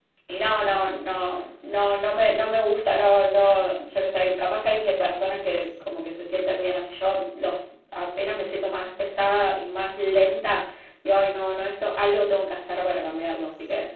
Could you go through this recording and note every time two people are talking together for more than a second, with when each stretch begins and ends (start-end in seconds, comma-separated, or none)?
none